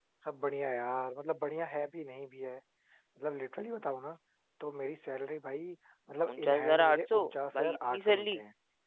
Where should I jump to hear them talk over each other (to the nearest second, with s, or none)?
6 s